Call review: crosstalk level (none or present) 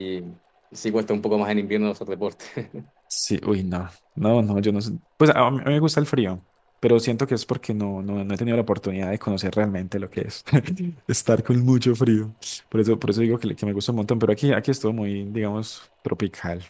none